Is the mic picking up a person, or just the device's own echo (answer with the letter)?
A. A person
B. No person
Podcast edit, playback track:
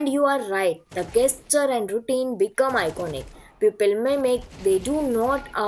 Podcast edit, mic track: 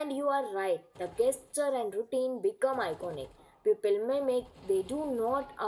B